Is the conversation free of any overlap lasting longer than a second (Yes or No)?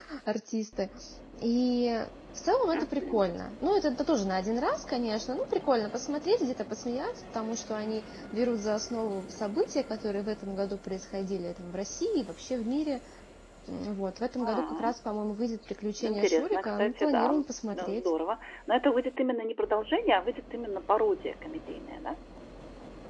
No